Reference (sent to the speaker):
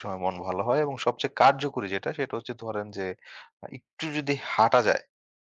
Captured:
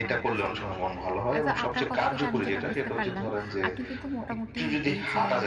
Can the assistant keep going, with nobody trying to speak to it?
No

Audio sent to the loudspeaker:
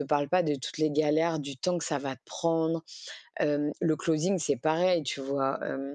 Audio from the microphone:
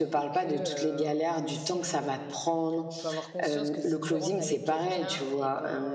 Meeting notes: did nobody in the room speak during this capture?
No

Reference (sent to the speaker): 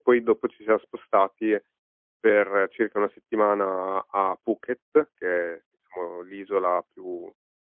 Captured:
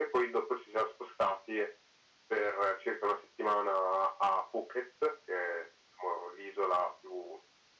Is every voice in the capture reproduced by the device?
Yes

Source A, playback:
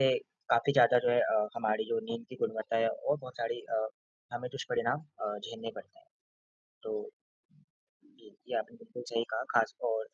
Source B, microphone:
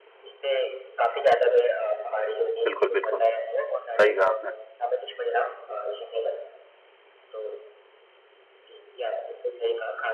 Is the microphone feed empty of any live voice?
No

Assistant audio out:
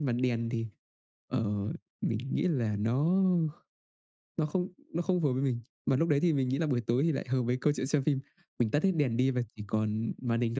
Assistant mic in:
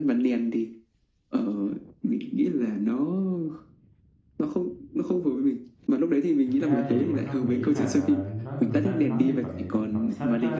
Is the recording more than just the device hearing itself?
Yes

